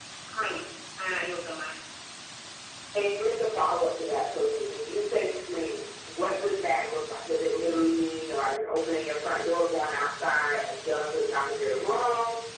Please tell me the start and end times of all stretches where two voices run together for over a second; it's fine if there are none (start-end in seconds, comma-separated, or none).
none